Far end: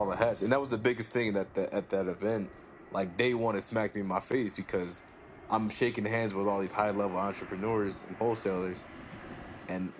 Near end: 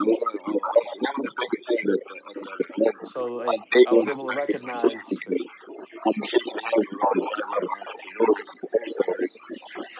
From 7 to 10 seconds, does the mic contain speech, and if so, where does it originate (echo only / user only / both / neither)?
echo only